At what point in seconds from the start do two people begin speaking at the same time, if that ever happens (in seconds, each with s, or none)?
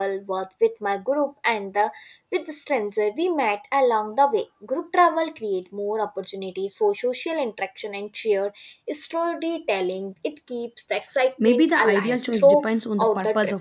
11.4 s